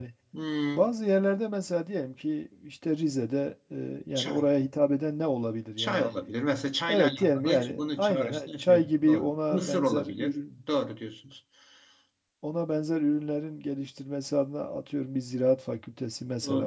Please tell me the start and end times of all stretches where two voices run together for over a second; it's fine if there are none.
6.9-10.6

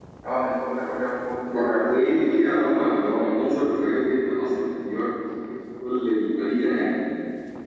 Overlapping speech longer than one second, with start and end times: 1.5-3.4

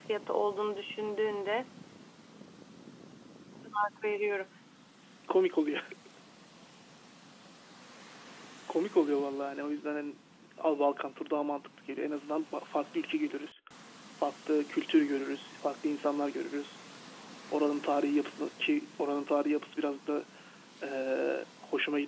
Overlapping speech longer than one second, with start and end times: none

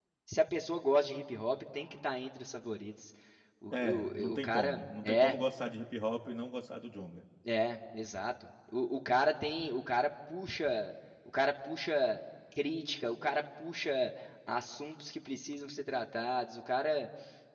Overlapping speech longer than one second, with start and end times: 3.8-5.4

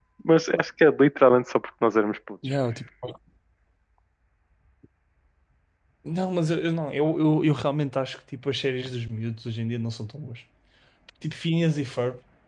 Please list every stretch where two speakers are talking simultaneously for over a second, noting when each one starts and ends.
none

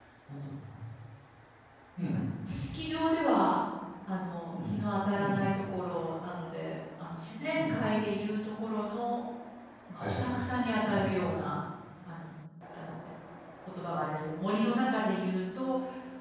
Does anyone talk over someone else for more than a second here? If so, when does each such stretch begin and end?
none

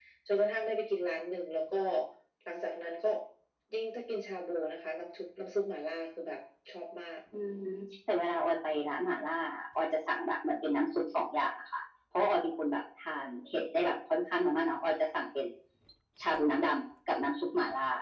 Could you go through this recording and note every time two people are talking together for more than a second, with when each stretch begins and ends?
none

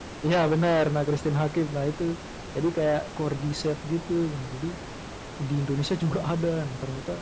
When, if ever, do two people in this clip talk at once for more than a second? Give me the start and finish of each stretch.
none

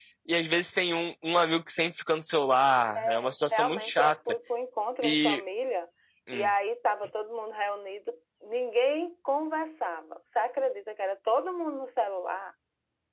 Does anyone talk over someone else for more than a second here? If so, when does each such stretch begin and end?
3.0-4.2

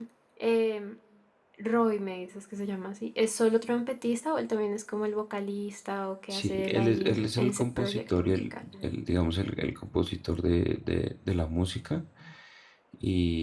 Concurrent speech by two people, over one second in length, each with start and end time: 6.3-8.6

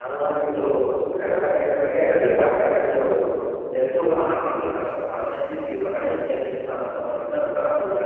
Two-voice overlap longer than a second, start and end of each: none

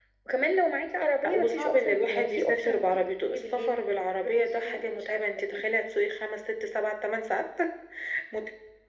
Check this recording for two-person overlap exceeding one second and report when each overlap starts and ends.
1.2-3.8, 4.2-5.6

